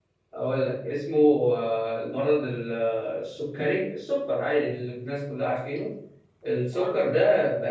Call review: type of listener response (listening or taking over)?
listening